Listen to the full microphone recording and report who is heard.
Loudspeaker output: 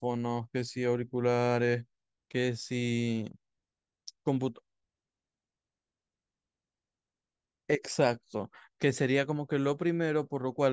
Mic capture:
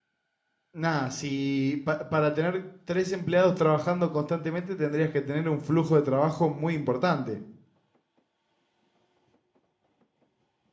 user only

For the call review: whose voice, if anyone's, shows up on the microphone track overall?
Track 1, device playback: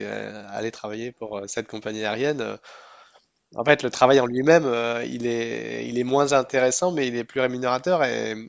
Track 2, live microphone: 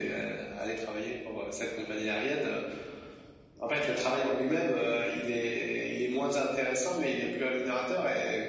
echo only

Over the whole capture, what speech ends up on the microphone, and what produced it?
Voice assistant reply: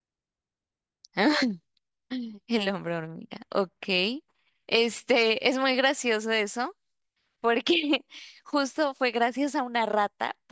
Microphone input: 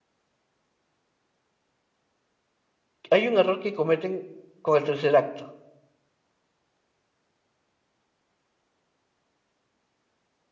user only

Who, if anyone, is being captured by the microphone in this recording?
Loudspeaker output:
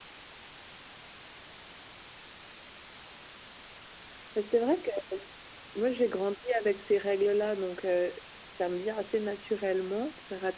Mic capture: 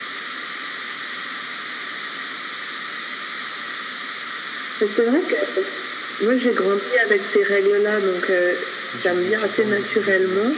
both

